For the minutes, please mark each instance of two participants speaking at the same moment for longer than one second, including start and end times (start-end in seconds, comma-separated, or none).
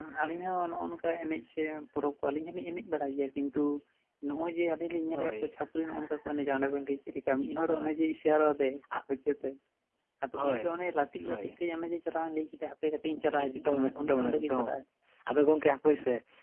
13.4-14.7